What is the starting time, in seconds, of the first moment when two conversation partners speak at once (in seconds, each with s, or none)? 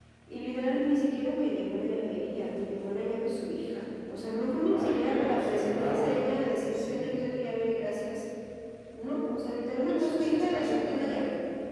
4.7 s